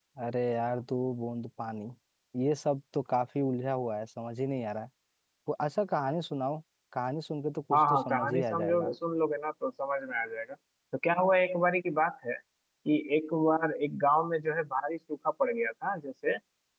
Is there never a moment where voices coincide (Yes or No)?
No